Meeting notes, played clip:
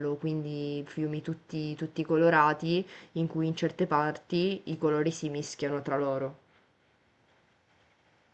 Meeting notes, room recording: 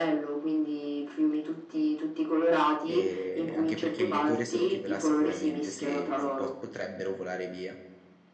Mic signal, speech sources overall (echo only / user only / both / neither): both